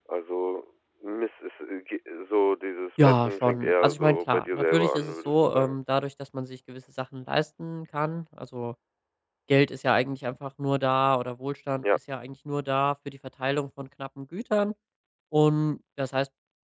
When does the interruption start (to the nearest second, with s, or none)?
3 s